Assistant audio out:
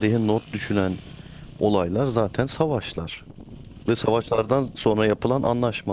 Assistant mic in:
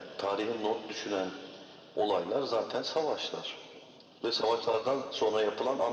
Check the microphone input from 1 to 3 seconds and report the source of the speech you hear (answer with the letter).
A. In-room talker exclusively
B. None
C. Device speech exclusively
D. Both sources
C